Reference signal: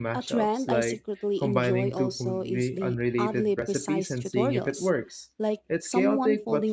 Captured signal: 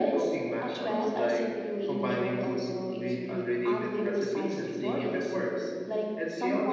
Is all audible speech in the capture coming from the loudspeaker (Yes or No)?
Yes